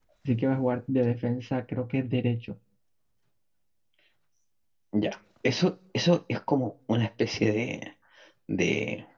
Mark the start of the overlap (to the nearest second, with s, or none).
none